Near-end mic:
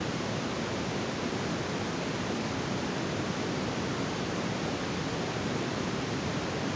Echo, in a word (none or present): none